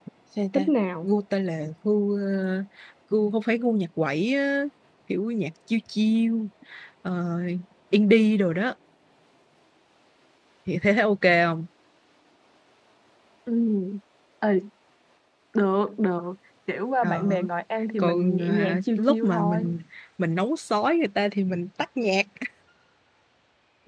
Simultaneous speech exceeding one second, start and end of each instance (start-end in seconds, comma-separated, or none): 18.0-19.8